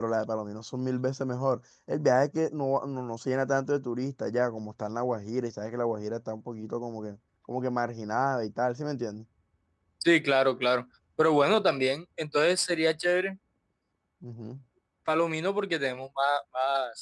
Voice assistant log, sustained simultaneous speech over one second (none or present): none